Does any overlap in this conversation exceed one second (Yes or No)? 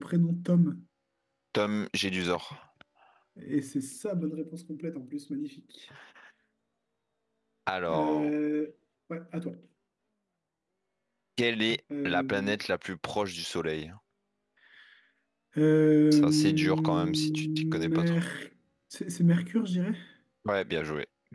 Yes